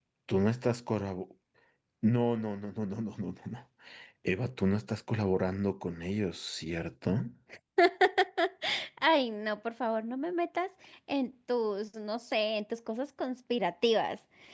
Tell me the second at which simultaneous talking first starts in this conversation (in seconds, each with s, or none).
none